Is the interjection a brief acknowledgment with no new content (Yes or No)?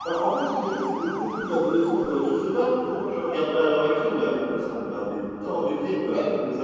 No